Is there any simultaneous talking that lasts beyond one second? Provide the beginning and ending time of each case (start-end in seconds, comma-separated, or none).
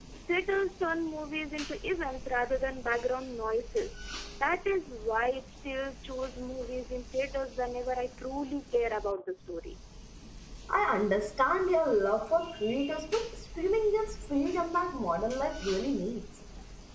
none